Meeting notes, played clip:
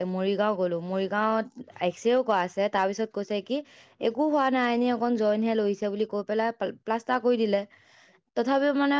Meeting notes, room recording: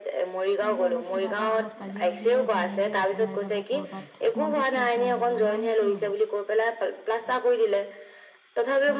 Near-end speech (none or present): present